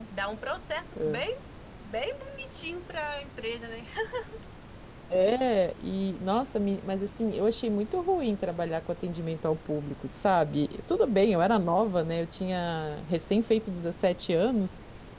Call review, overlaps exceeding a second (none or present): none